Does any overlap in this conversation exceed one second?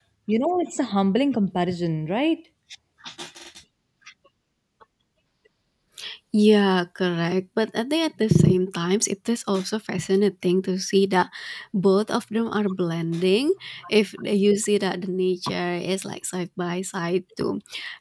No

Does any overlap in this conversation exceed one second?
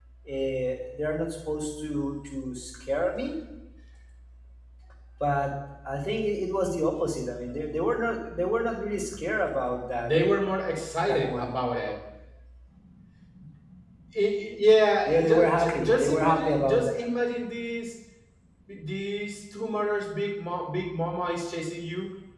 Yes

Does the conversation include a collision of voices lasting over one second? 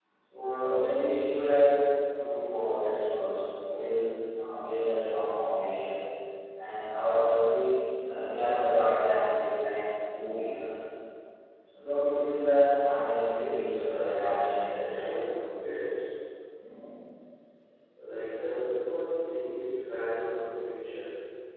Yes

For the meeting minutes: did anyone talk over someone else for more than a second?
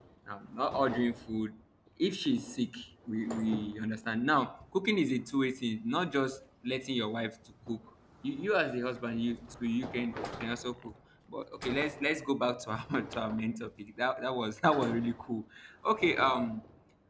No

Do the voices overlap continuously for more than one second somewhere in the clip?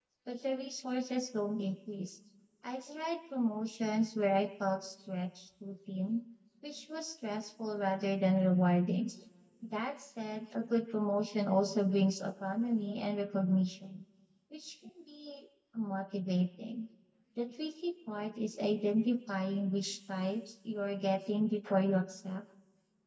No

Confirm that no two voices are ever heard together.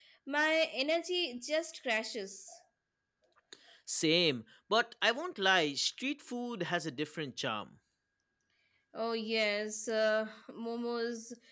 Yes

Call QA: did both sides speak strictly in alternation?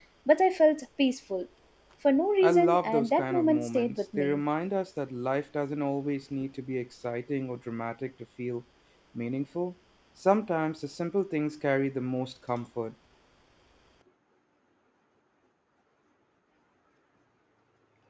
No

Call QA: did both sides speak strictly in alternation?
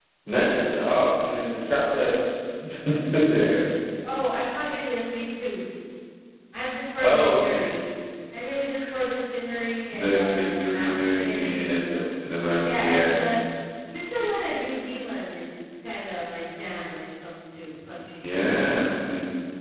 No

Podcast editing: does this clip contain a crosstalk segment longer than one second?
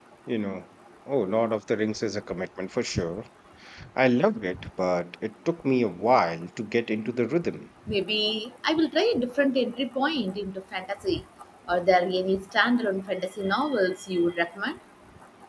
No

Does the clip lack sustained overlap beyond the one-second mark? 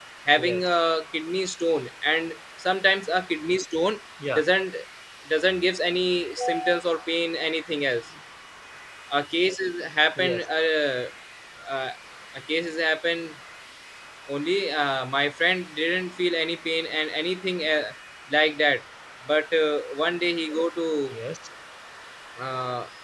Yes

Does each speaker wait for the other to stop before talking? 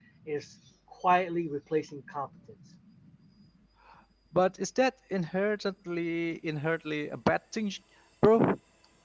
Yes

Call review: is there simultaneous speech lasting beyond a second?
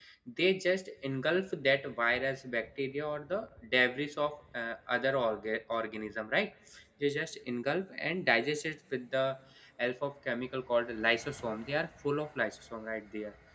No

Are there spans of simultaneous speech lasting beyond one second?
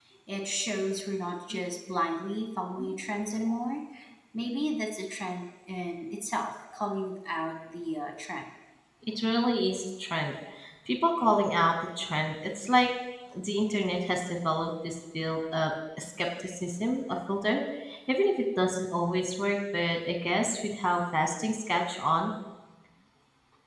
No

